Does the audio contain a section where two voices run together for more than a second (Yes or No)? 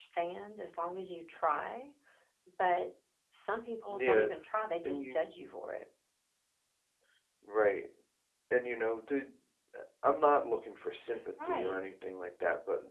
No